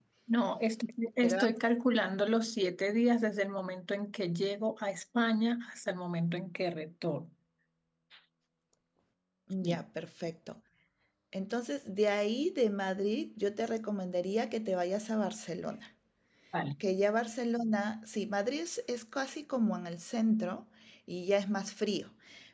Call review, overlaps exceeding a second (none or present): none